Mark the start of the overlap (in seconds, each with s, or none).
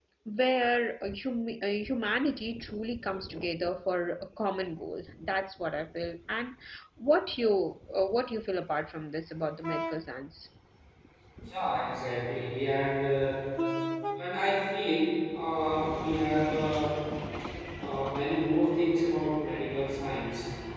none